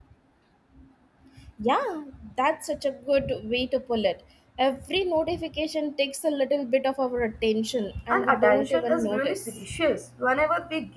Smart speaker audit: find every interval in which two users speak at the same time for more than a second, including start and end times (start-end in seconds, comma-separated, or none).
8.1-9.6